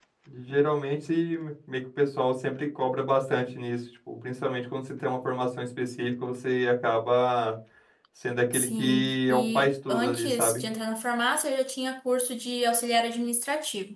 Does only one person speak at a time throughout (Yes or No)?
No